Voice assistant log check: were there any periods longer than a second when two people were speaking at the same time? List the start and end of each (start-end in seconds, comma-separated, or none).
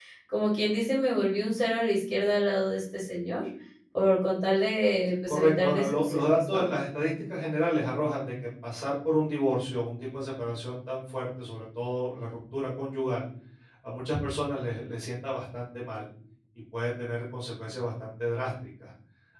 5.3-6.7